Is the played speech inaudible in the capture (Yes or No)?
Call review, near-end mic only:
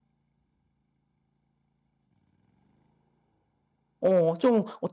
Yes